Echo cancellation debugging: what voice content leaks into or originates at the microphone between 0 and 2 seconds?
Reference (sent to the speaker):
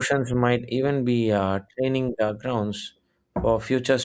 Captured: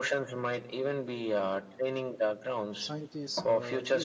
echo only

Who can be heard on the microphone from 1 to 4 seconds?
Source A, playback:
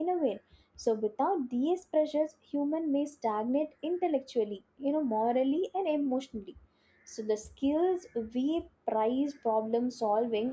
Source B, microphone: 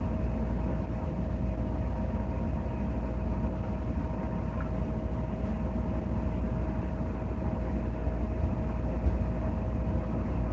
neither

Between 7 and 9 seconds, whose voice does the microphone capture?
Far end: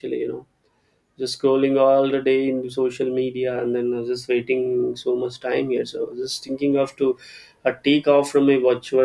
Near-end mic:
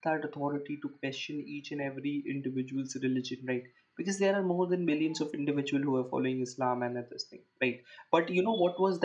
user only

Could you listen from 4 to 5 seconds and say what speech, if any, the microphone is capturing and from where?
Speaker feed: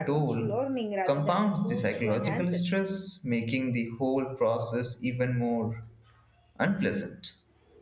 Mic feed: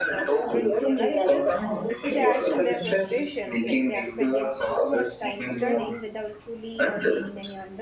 both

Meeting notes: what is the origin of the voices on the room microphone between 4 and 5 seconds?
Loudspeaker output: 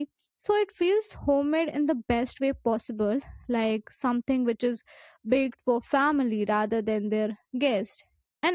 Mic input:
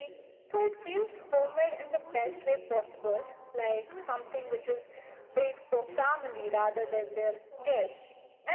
both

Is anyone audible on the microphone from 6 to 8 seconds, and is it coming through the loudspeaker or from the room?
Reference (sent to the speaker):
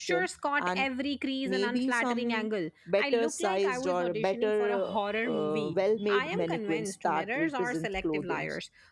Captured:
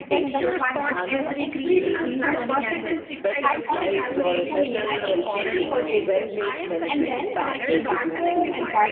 both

